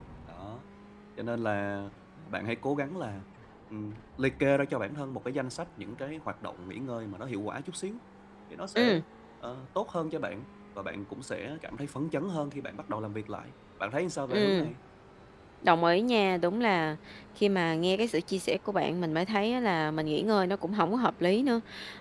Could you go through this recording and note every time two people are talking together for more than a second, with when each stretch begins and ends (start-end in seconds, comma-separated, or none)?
none